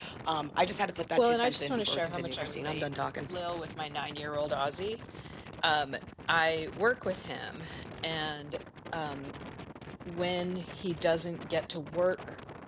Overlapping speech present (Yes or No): Yes